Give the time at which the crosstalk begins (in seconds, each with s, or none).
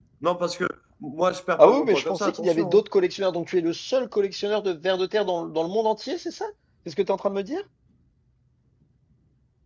1.6 s